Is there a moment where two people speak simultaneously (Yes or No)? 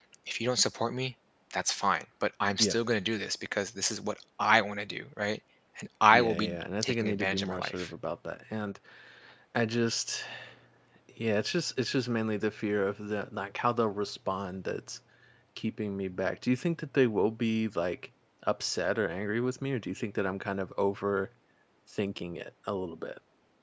Yes